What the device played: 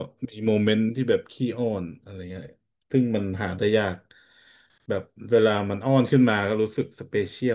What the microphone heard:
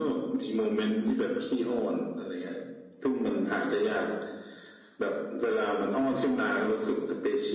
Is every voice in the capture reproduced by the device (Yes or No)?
Yes